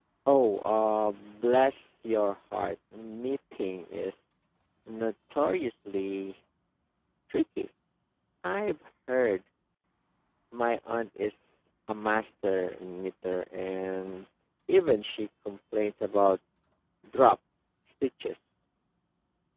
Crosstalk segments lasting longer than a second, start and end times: none

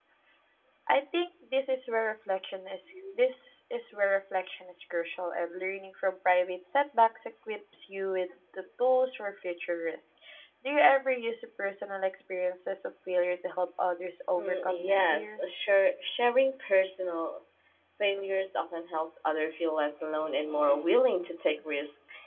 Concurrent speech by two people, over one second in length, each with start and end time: 14.4-15.6

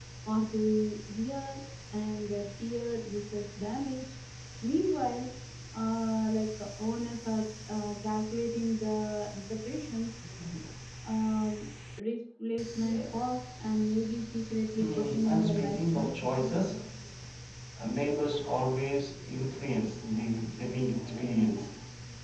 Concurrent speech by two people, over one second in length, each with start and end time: 14.8-16.3

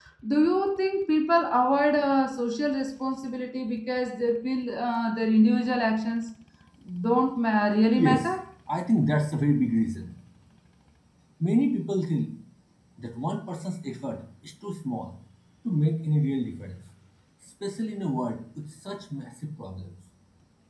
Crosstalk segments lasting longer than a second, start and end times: none

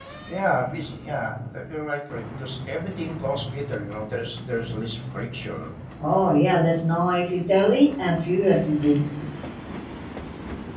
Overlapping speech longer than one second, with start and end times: none

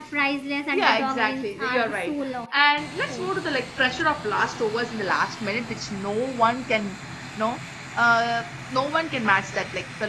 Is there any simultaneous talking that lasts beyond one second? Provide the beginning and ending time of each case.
0.7-2.3

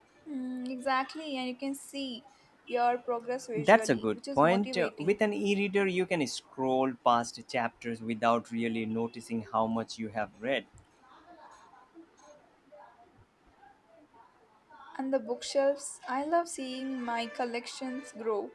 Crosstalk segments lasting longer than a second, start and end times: 3.5-5.2

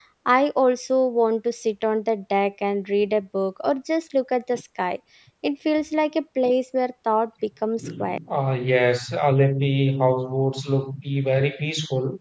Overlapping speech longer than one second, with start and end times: none

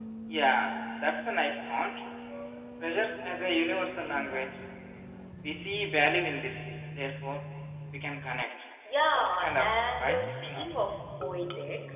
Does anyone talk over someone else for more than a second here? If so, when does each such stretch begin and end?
9.1-10.7

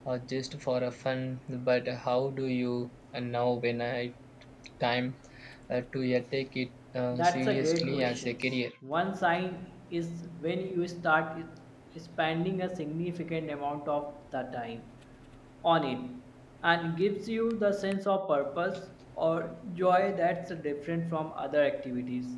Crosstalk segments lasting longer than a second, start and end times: 7.1-8.4

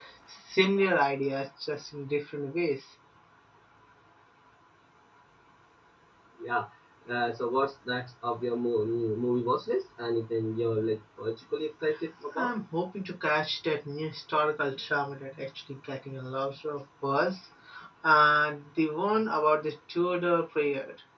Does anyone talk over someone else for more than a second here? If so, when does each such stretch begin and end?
none

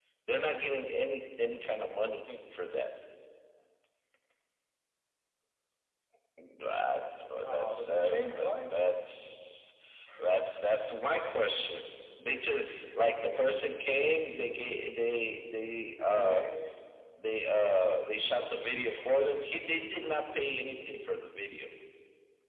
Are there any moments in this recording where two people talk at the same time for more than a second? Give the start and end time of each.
7.4-8.7

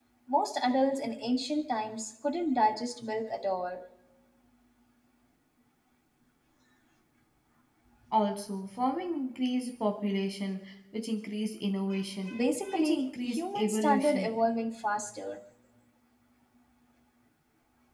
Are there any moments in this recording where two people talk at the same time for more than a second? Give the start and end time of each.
12.7-14.3

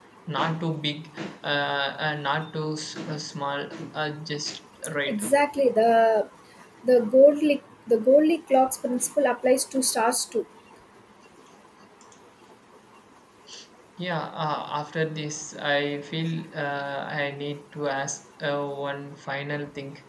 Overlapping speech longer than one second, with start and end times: none

